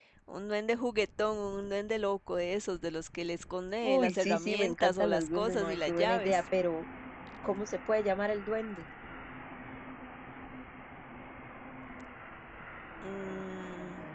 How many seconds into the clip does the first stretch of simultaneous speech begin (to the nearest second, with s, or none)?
4 s